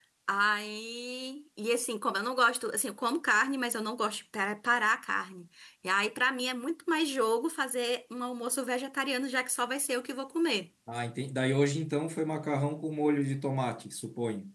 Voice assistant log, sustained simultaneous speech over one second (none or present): none